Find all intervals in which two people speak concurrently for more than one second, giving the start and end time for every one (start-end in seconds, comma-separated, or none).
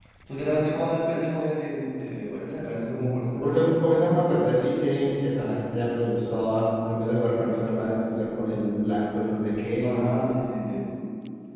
none